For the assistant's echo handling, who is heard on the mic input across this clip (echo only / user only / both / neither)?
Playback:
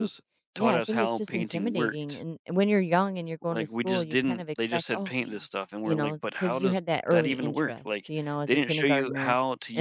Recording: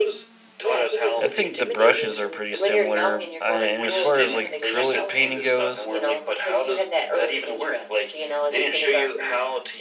both